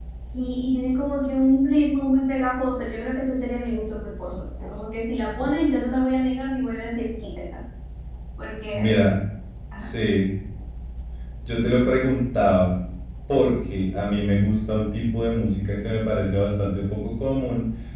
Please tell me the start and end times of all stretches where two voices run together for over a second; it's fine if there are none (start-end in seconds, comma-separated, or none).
none